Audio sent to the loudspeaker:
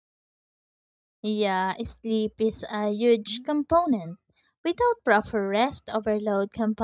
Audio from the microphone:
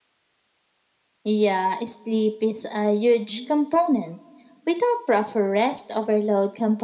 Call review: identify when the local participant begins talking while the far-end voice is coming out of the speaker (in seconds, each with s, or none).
none